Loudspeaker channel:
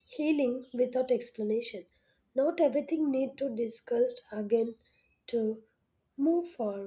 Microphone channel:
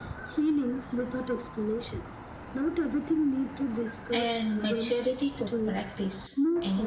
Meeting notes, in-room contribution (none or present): present